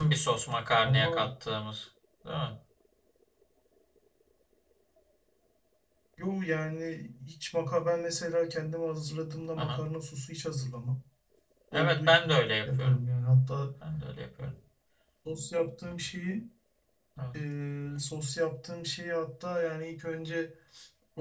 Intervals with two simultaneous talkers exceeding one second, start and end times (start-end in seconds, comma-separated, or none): none